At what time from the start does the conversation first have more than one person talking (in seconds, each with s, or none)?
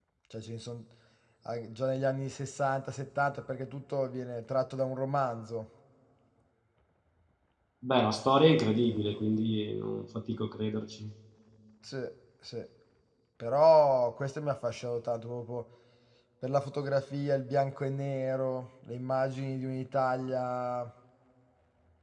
none